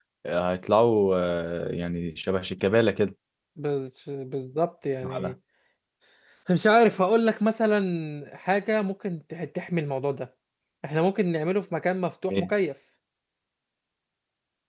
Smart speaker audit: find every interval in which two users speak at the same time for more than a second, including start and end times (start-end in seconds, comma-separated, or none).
none